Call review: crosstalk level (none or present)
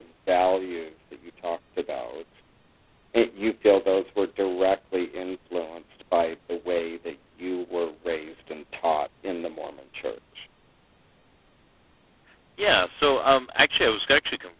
none